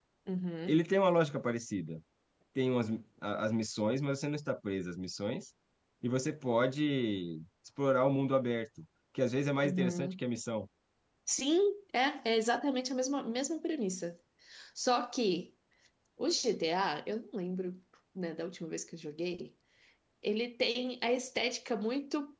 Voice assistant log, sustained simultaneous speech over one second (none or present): none